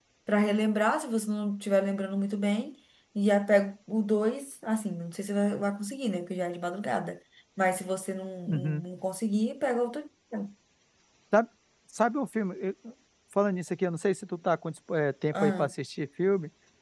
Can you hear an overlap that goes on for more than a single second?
No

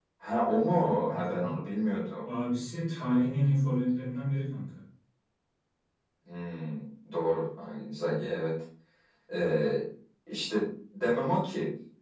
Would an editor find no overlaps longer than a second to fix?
Yes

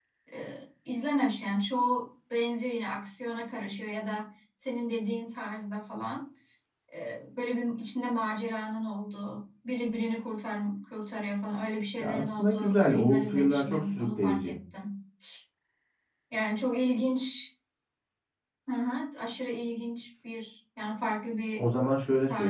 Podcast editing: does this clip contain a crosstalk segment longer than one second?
Yes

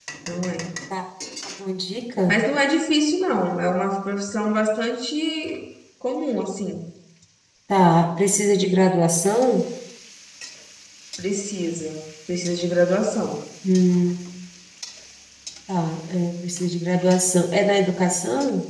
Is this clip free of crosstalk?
Yes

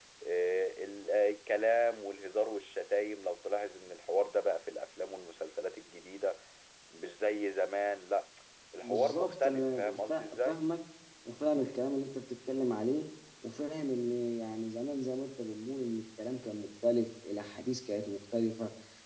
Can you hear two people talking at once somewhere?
Yes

